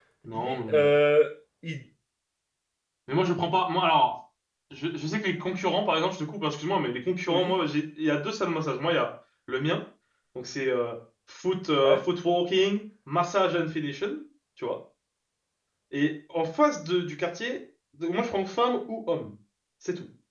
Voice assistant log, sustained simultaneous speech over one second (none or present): none